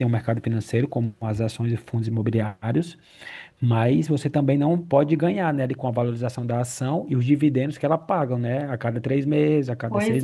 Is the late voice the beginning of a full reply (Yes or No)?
No